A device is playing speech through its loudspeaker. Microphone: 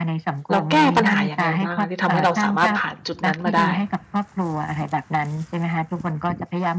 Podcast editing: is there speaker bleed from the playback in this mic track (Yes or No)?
Yes